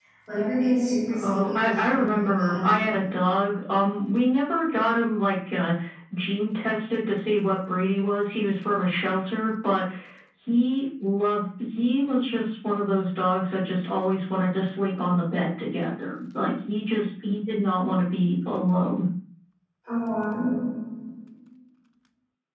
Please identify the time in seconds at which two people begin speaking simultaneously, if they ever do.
1.1 s

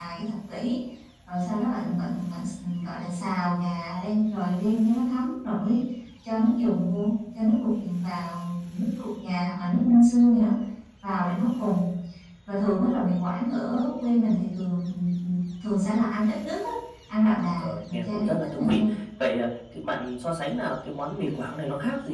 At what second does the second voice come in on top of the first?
17.6 s

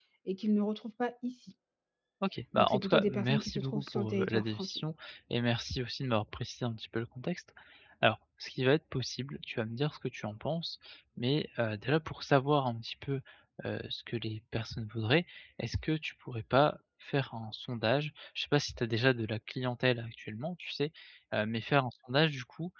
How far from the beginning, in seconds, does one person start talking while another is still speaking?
2.6 s

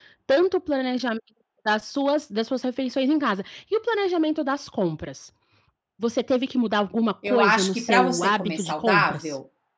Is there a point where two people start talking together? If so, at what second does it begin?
7.2 s

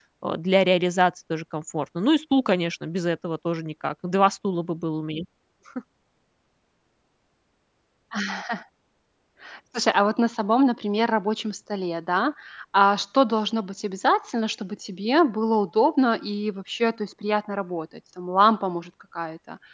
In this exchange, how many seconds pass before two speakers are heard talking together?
none

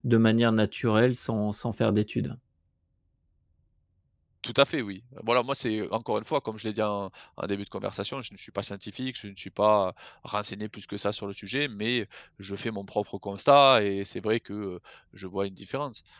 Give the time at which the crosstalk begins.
none

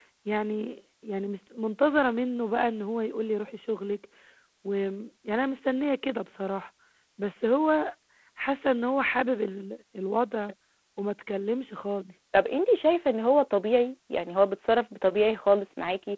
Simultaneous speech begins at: none

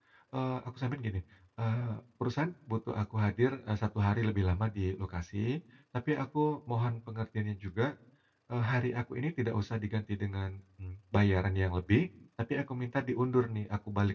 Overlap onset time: none

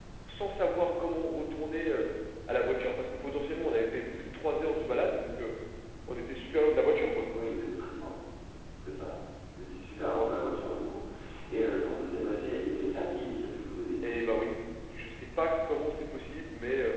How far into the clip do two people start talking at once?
none

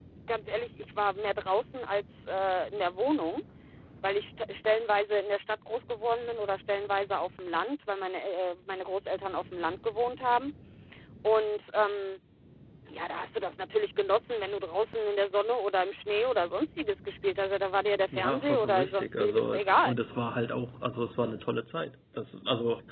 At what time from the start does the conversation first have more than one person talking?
18.1 s

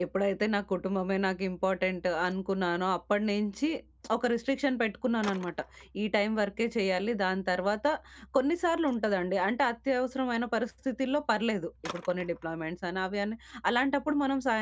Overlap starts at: none

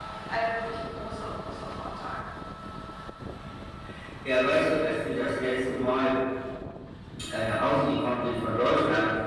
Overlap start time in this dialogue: none

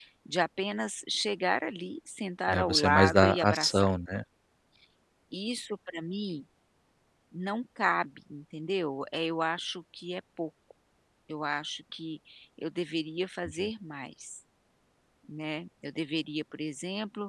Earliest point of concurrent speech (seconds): 2.5 s

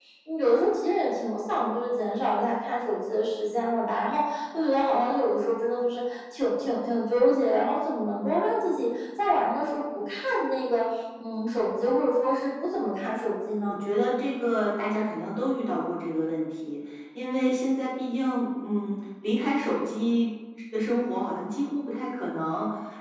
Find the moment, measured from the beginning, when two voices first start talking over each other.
none

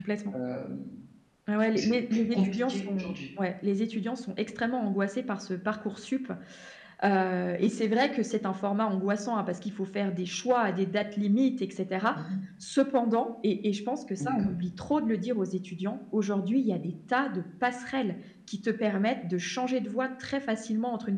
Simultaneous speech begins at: 1.7 s

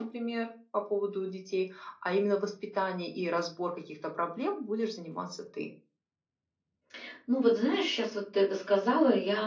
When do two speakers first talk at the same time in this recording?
none

